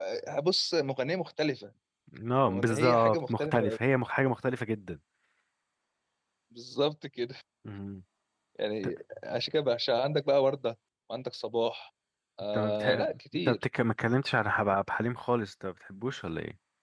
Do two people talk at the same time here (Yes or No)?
Yes